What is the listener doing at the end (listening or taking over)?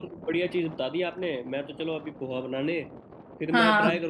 listening